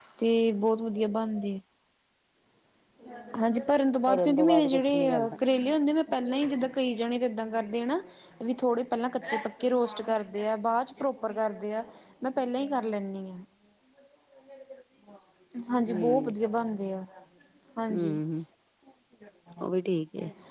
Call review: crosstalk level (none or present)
present